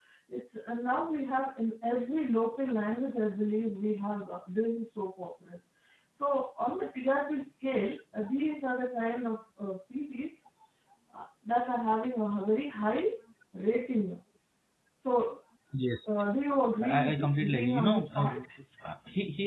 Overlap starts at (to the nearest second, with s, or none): 17 s